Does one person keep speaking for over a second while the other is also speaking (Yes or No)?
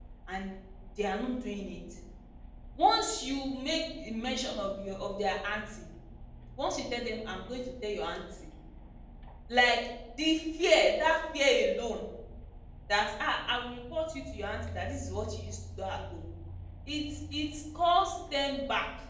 No